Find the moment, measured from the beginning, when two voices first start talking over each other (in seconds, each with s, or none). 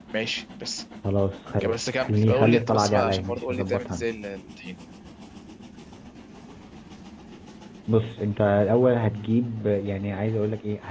1.6 s